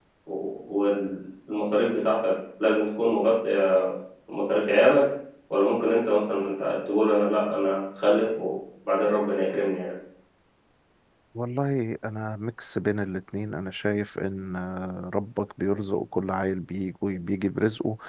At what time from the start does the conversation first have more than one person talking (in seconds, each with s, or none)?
none